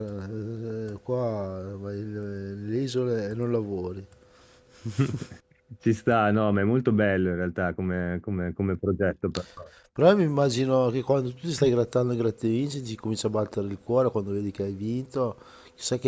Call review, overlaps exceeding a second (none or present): none